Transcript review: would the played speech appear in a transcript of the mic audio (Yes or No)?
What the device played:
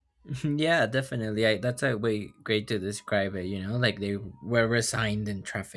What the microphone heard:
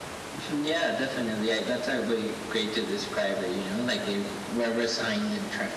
Yes